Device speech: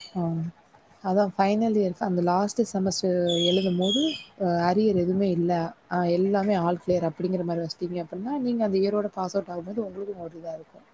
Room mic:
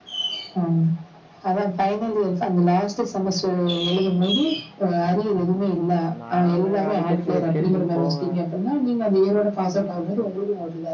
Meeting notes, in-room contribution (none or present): present